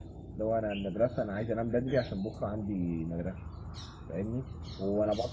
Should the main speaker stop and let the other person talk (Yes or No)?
No